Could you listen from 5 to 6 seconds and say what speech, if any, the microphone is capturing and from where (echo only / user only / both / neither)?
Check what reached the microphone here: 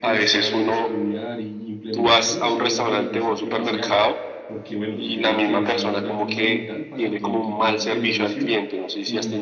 both